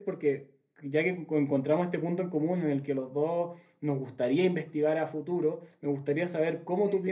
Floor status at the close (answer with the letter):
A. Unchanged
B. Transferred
A